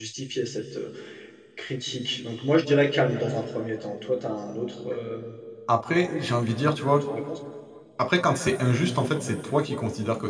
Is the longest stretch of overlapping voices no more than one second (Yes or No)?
Yes